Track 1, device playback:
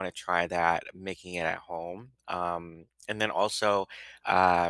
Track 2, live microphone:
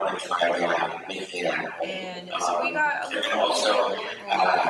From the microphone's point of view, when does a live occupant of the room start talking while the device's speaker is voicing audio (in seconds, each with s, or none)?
1.8 s